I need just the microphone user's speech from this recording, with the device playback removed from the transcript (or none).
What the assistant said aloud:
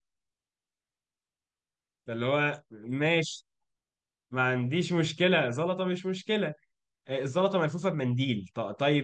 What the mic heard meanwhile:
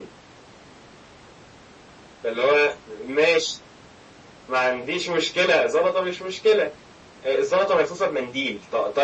none